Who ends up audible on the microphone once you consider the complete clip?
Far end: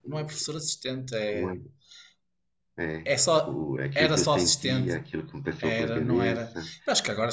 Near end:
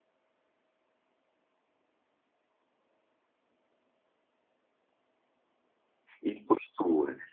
user only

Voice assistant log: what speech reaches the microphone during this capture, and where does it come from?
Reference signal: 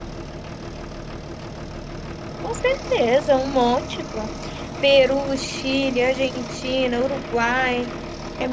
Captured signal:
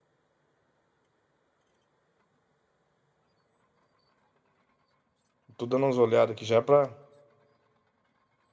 user only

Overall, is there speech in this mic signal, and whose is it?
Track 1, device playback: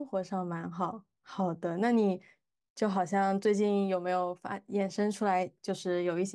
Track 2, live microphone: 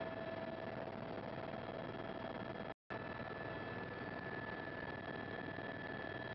neither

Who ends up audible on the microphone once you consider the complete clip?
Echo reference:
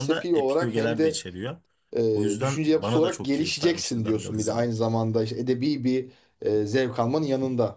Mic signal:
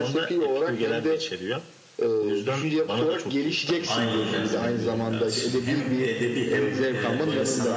both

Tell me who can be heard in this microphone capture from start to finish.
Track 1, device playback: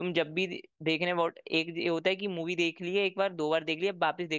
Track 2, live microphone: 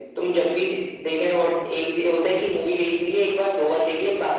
echo only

